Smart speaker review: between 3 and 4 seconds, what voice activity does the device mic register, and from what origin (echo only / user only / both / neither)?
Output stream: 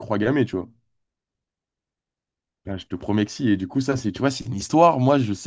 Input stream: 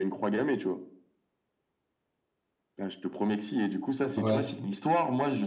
echo only